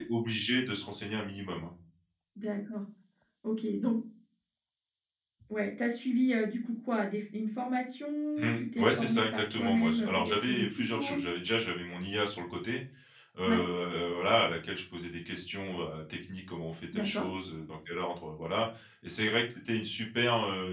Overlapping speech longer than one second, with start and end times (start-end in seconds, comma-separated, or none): 8.4-11.2